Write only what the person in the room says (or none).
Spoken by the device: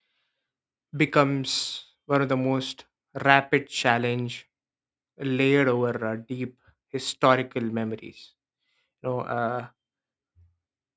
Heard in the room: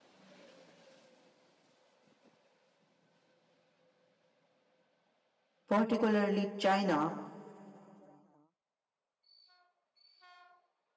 particularly China,